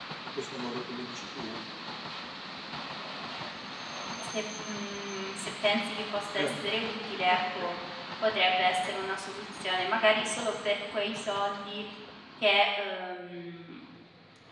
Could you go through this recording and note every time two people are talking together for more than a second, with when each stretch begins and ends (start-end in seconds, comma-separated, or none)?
none